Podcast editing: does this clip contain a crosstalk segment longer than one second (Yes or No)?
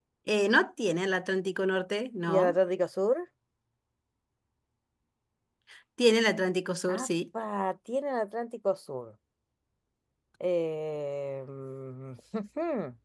No